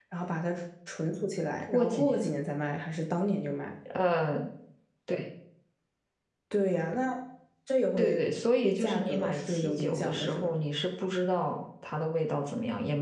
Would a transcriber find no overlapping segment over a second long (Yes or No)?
No